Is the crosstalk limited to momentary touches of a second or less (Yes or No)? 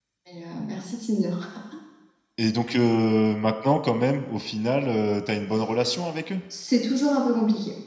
Yes